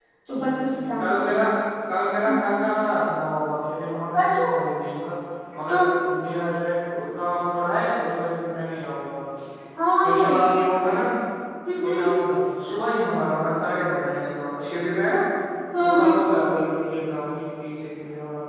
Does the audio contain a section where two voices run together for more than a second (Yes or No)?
No